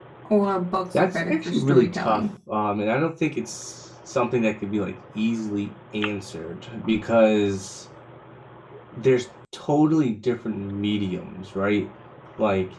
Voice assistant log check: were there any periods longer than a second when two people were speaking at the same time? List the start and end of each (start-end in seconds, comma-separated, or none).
0.9-2.2